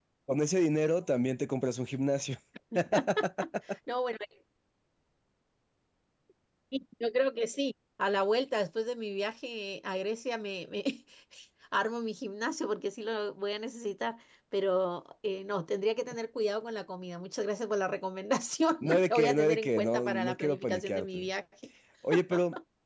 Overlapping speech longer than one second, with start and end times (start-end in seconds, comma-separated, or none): 18.8-21.3